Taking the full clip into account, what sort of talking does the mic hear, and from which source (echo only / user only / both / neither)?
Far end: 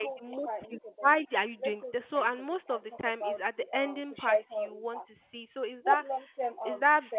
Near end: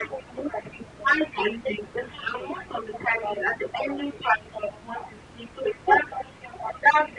echo only